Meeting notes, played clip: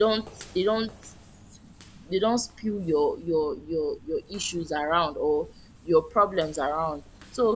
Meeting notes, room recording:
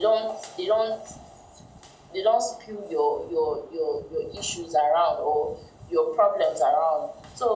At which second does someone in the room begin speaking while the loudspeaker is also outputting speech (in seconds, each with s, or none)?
none